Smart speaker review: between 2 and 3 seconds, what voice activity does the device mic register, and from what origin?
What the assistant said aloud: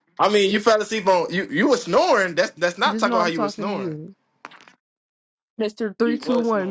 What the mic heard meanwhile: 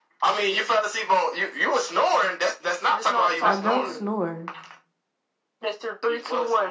echo only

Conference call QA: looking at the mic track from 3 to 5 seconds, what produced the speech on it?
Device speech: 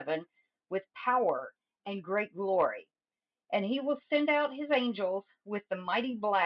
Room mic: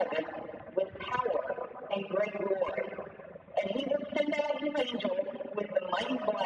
echo only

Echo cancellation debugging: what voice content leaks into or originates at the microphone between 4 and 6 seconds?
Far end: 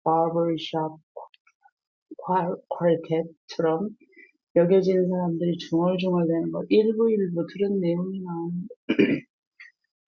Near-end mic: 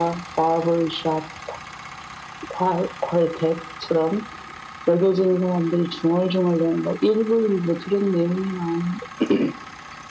echo only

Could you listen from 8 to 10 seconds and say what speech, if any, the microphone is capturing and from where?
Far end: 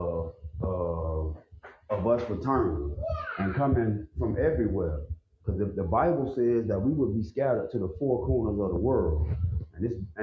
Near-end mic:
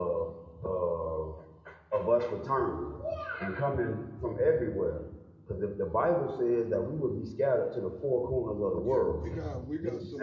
both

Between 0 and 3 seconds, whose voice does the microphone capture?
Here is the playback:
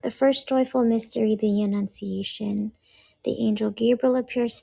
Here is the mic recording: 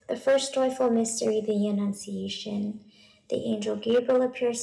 echo only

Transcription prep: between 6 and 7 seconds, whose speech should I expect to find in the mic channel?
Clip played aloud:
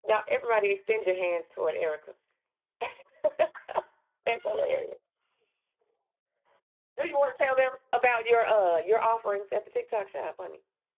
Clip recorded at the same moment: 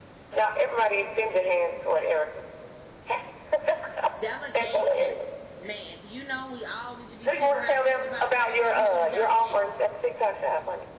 user only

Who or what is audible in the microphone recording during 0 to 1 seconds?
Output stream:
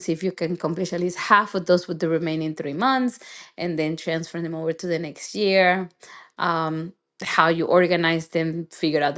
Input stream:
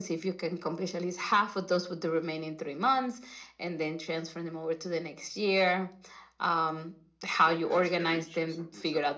echo only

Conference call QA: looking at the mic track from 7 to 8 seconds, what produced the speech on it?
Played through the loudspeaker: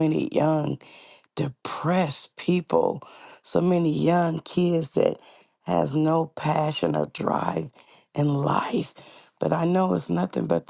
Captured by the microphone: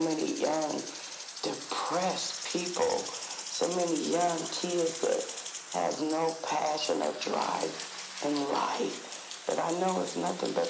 echo only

